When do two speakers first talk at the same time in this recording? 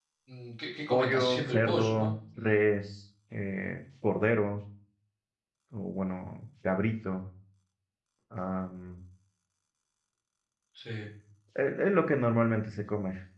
0.9 s

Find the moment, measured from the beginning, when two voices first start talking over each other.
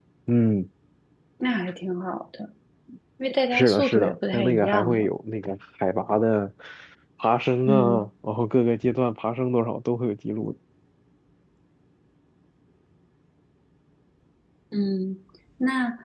3.5 s

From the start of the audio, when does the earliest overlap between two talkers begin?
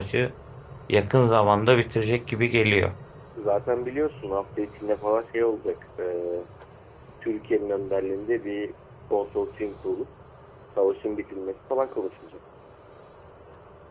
none

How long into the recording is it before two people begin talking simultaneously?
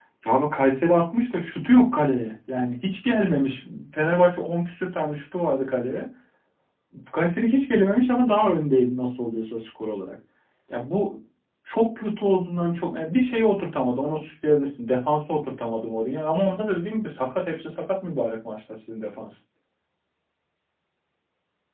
none

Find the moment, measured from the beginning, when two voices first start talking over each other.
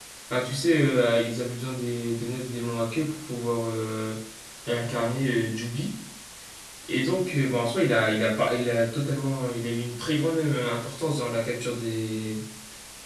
none

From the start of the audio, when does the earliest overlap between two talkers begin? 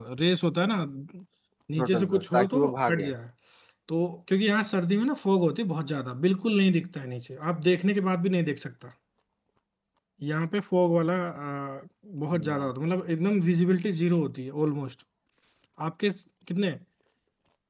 1.8 s

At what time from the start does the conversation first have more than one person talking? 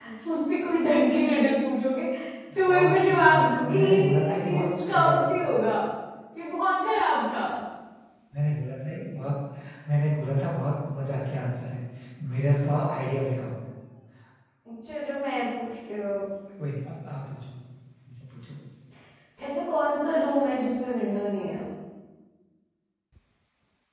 2.7 s

